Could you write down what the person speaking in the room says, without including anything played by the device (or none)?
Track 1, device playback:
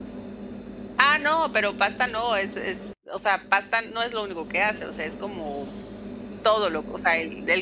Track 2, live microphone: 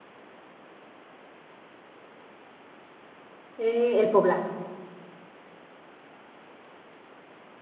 eh, el poblano.